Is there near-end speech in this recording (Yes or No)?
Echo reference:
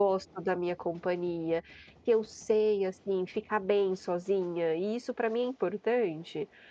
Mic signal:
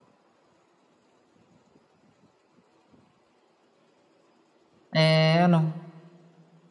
Yes